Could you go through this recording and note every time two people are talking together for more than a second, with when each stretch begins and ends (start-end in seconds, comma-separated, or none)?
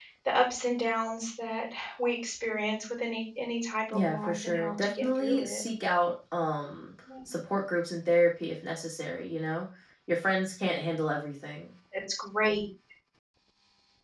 3.9-5.6